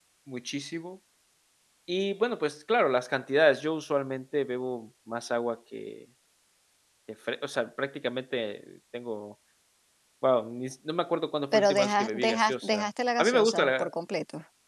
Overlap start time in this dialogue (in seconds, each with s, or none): 11.5 s